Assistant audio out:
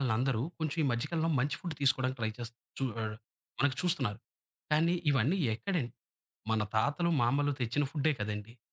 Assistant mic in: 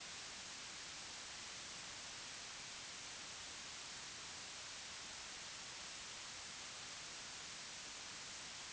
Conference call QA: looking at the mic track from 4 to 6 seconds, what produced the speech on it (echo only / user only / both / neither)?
neither